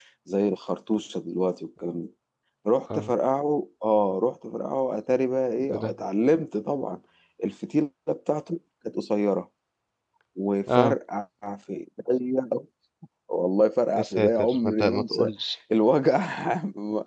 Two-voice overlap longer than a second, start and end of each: 14.0-15.3

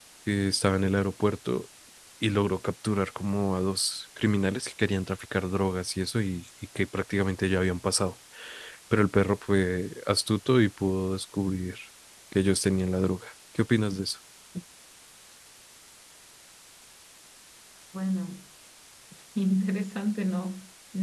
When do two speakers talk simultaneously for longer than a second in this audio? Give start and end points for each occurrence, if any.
none

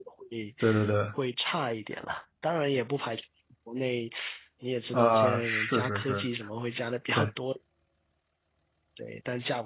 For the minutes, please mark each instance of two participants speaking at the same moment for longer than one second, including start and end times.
4.9-6.3

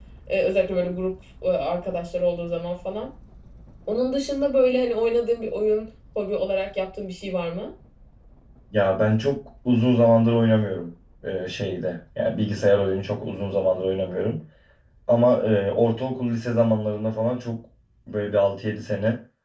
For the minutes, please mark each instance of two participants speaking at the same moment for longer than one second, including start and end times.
none

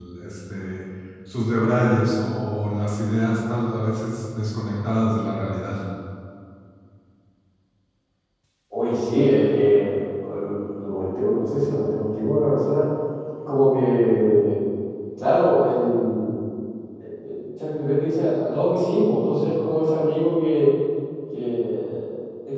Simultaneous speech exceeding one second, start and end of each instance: none

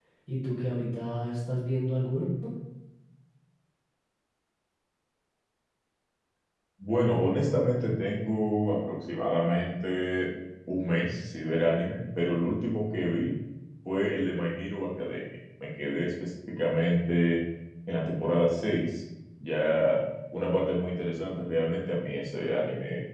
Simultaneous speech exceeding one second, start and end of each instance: none

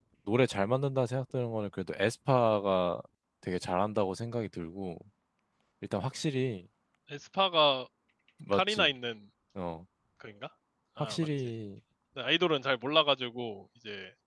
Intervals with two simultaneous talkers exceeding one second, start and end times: none

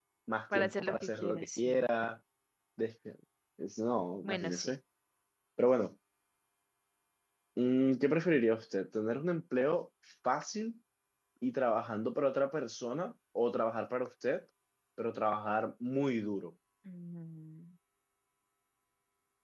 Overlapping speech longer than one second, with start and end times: 0.5-1.9

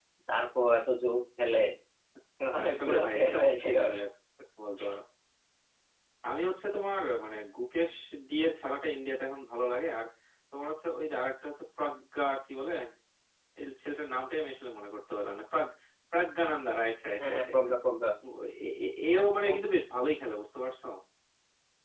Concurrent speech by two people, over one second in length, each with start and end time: 2.6-3.9

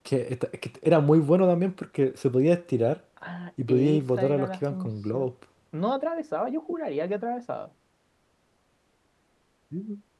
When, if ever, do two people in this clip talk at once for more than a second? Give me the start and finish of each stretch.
3.7-5.3

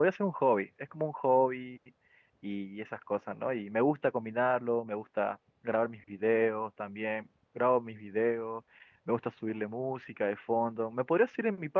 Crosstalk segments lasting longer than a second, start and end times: none

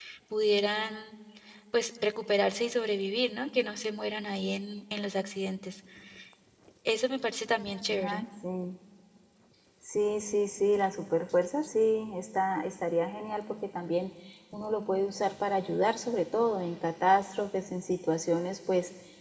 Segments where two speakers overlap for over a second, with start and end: none

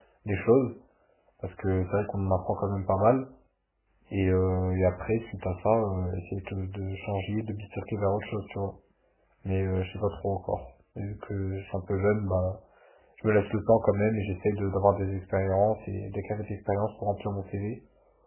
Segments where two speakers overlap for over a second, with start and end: none

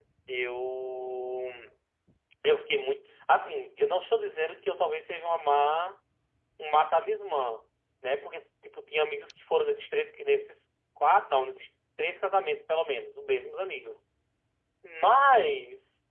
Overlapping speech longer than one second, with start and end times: none

